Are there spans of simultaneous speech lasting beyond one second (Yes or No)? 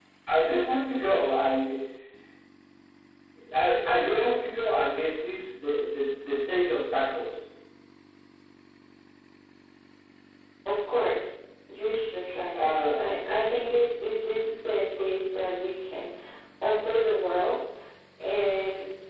No